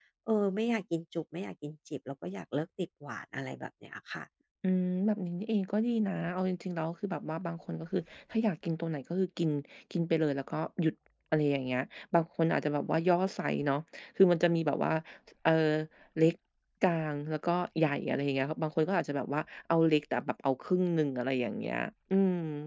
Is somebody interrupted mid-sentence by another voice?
No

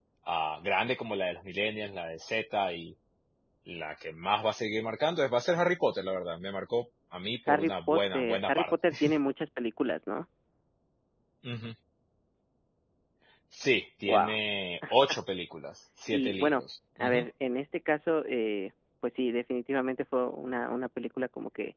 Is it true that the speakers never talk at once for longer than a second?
No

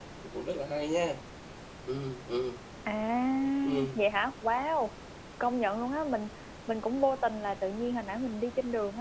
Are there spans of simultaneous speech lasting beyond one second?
No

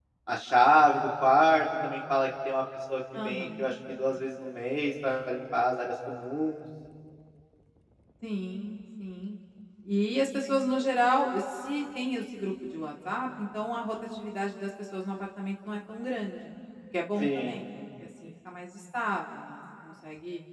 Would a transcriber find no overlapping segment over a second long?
Yes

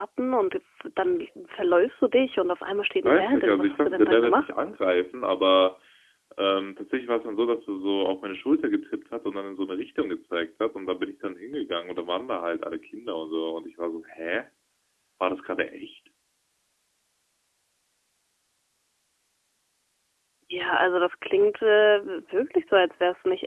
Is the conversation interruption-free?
No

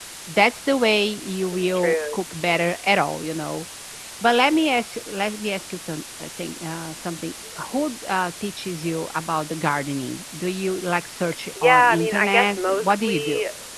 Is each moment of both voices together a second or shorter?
No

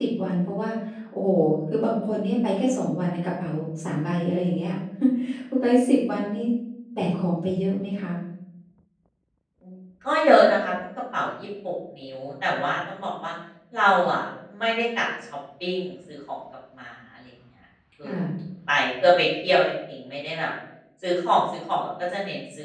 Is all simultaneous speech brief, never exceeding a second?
Yes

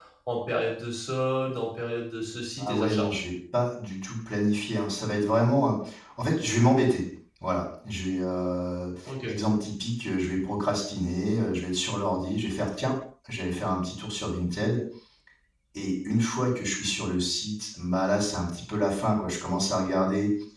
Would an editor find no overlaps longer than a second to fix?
Yes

